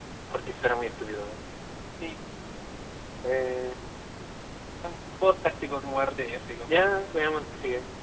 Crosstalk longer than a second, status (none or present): none